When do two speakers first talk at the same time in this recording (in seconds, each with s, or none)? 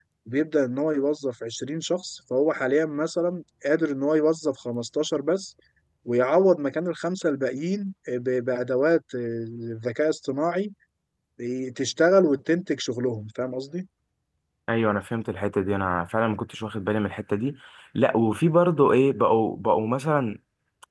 none